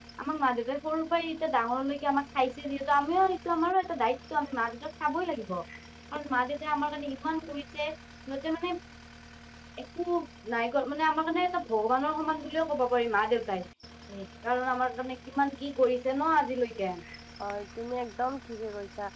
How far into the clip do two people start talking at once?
none

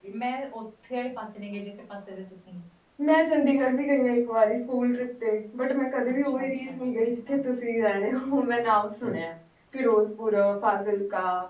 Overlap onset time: 6 s

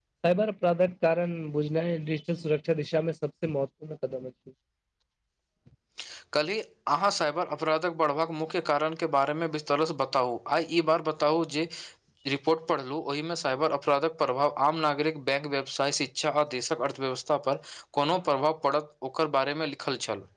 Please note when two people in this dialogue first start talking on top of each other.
none

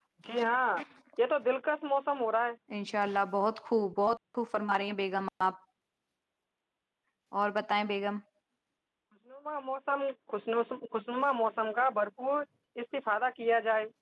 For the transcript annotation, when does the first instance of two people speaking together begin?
none

